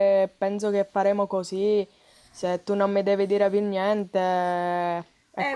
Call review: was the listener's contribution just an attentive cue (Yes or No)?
No